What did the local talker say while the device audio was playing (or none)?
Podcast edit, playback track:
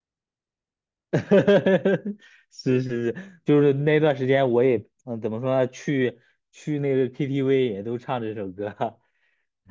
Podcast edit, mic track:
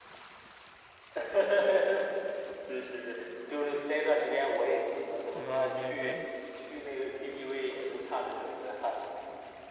对对对，